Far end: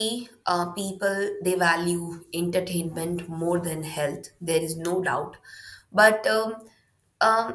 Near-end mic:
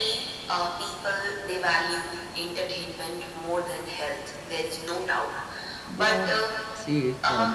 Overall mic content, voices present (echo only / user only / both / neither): both